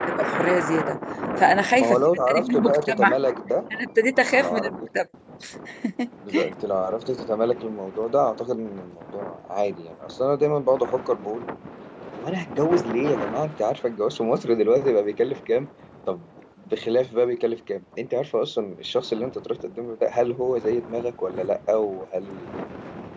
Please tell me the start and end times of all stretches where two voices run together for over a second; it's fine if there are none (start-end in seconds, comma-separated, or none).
1.8-3.1